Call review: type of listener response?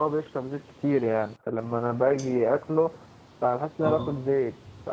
listening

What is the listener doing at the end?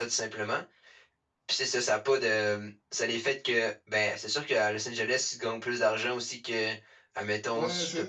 taking over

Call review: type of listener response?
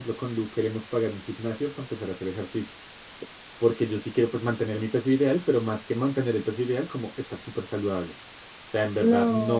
listening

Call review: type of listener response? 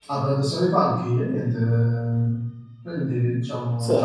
listening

